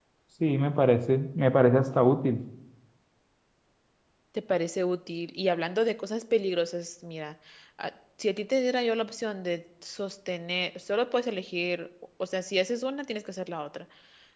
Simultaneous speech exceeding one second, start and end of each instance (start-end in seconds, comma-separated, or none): none